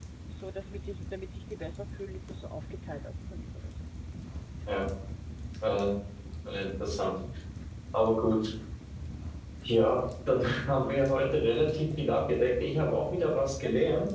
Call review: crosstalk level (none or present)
none